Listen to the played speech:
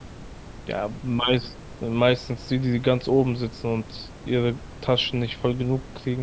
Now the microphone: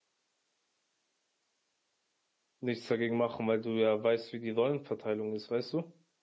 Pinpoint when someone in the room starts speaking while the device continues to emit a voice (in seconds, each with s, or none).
2.6 s